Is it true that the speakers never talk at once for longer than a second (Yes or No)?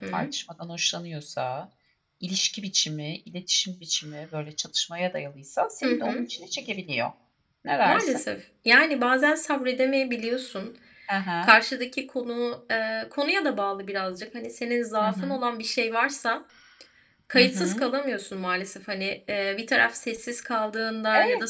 Yes